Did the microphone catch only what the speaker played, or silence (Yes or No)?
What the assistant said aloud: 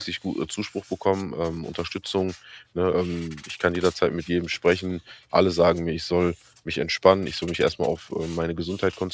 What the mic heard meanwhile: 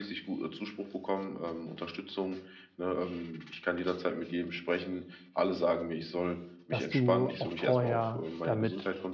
No